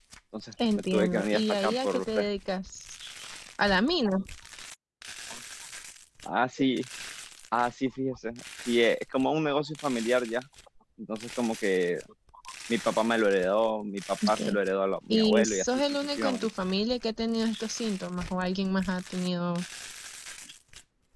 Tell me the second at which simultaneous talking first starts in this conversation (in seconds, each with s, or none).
0.8 s